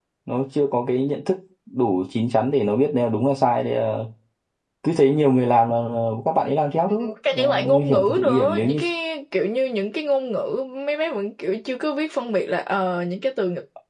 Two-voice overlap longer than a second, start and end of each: 6.9-8.8

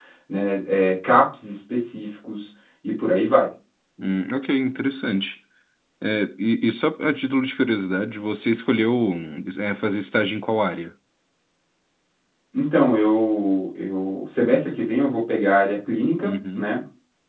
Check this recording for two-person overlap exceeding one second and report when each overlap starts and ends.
none

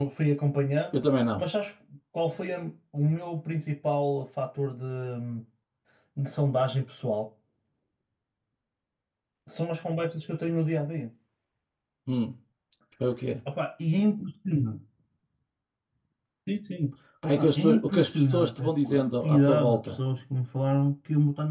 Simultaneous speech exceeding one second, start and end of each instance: 17.4-19.9

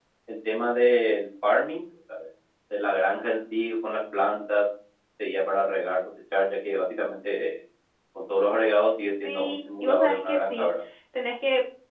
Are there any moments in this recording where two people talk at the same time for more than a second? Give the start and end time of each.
9.2-10.7

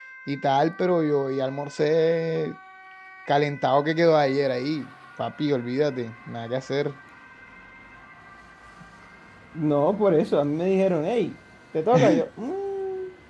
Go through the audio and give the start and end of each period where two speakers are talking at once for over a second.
none

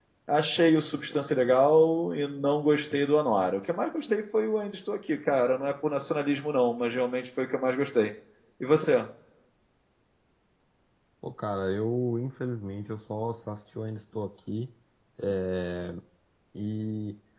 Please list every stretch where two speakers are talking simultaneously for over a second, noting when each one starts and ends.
none

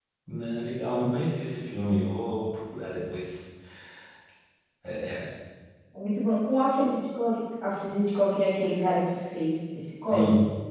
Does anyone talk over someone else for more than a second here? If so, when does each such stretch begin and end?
none

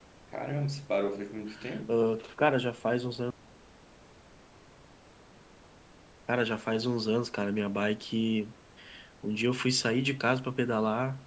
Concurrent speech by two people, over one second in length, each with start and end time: none

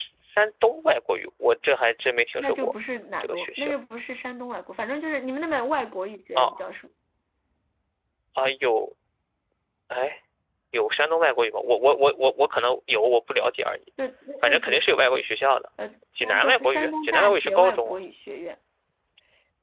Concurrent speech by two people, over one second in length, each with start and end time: 16.2-18.0

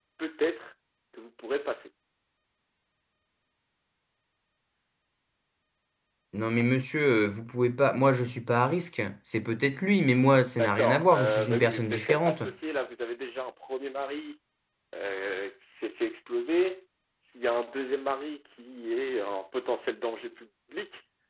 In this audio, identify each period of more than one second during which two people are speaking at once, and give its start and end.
10.6-12.4

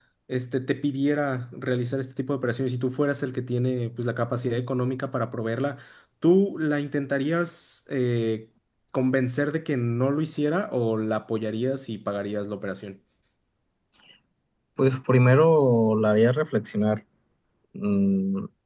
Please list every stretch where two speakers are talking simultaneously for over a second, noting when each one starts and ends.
none

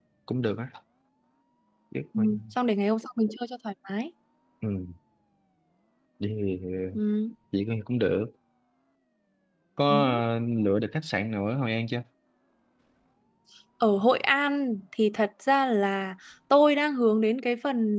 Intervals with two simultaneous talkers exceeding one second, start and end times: none

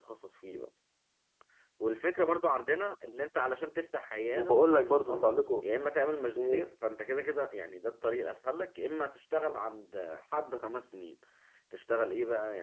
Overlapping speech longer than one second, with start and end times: 4.3-5.6

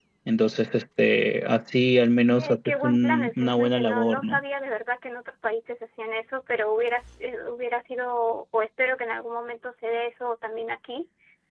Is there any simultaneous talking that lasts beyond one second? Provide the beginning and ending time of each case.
2.4-4.4

